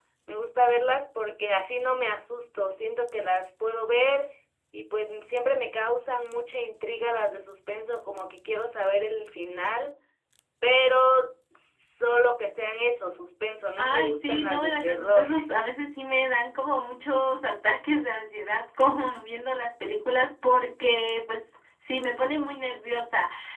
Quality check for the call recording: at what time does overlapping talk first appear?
13.8 s

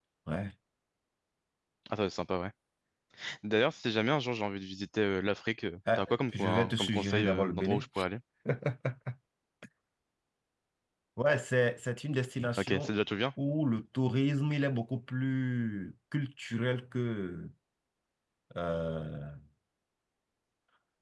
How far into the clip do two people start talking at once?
6.0 s

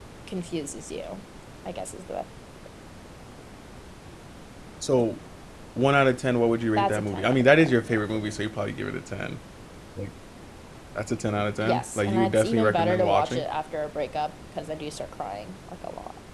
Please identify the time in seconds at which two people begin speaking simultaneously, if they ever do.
6.8 s

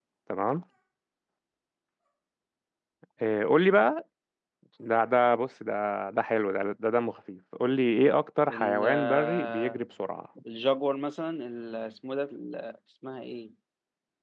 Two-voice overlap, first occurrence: 8.5 s

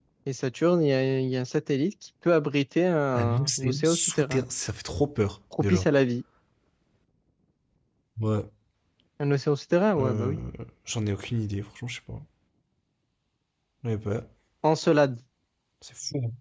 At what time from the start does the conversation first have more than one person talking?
3.1 s

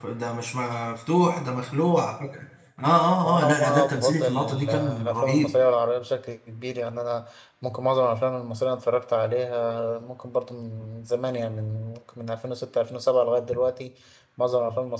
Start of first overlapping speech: 3.2 s

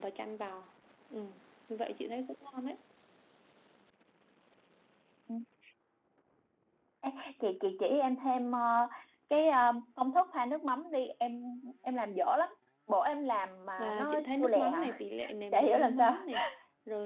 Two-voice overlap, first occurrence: 13.8 s

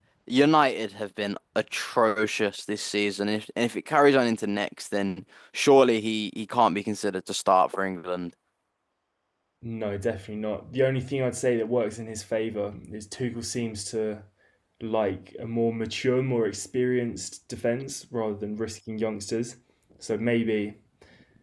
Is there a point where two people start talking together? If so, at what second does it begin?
none

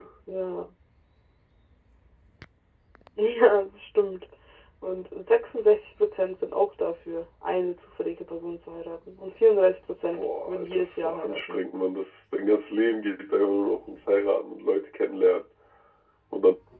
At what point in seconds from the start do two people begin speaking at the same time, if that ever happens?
10.1 s

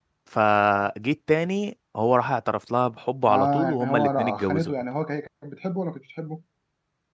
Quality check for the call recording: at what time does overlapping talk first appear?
3.3 s

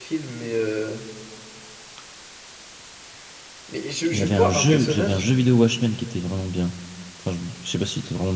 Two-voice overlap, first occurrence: 4.1 s

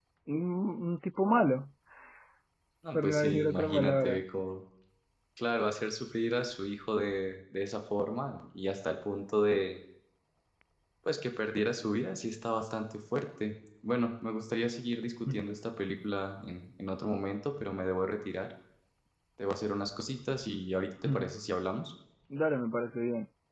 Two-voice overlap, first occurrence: 2.9 s

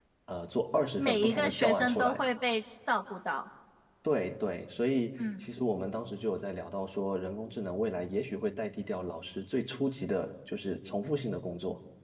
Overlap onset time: 1.0 s

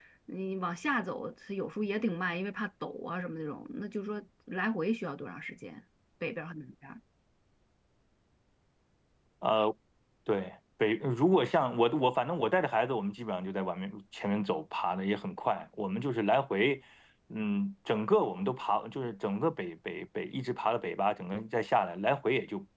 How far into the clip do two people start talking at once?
none

